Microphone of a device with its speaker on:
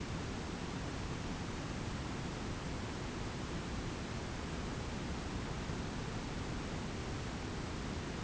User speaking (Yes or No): No